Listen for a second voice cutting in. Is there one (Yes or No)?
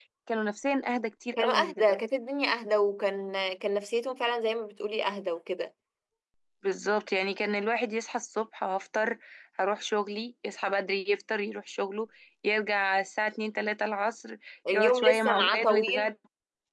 Yes